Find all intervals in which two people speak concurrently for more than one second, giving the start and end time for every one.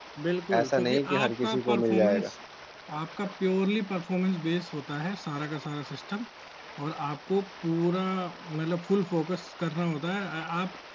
0.6-2.3

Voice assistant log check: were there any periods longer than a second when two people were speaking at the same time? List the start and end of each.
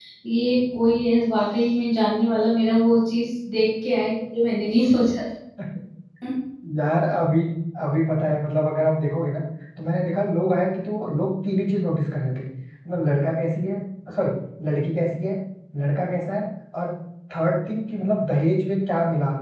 none

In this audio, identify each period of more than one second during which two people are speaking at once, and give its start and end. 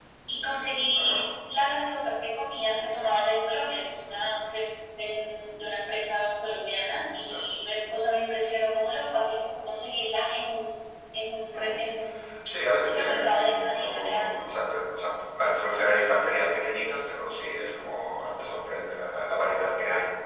12.8-14.5

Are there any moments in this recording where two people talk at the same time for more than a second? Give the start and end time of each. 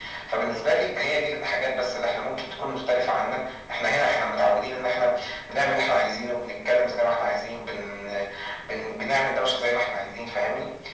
none

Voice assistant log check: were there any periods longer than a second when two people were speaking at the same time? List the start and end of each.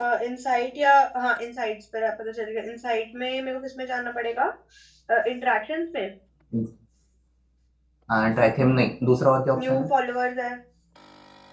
none

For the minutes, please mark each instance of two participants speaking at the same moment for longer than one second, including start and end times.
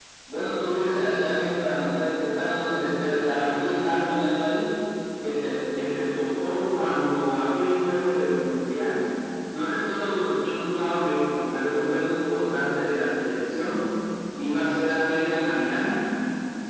none

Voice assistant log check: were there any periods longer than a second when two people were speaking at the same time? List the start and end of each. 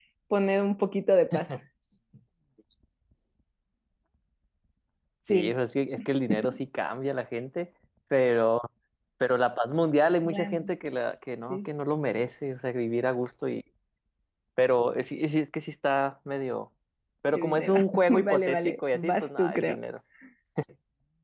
17.3-19.8

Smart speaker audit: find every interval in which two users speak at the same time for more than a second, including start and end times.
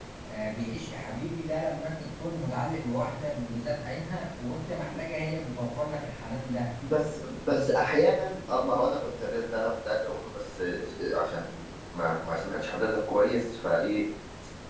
none

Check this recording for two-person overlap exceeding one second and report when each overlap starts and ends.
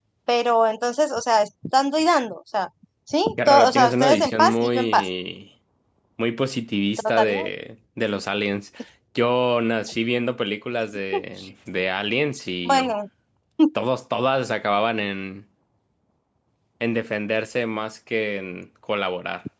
3.5-5.1

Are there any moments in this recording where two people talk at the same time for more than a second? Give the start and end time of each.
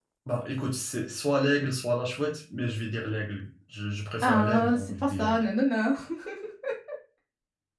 4.2-5.4

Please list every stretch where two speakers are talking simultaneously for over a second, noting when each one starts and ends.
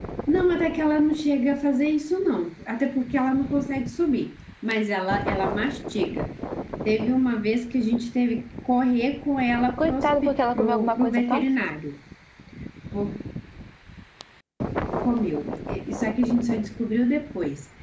9.8-11.5

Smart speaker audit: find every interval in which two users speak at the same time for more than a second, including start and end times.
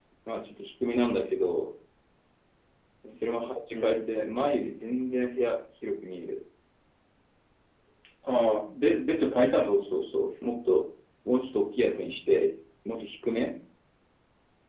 none

